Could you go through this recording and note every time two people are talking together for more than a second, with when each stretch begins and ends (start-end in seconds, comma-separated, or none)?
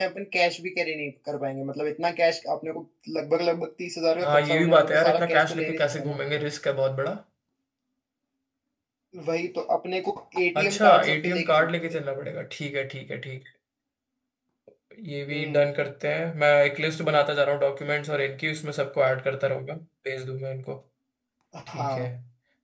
4.2-6.2, 10.6-12.0